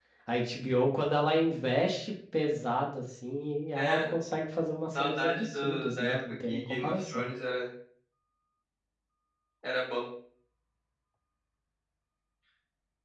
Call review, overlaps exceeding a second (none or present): present